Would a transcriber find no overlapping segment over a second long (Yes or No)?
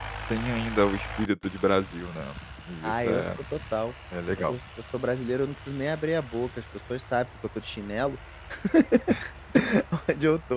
Yes